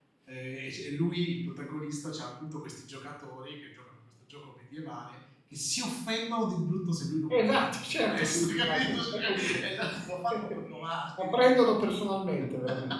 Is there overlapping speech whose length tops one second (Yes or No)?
Yes